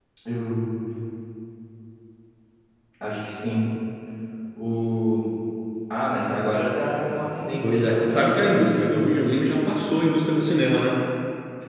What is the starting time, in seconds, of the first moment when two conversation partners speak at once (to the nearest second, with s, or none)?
8 s